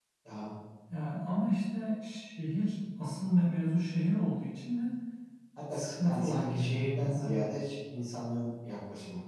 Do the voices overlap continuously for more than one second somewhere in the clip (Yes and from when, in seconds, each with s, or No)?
Yes, from 5.7 s